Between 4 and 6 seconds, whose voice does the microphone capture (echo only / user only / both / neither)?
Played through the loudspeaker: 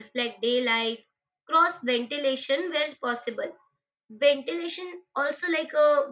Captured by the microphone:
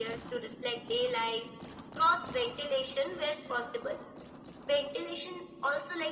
echo only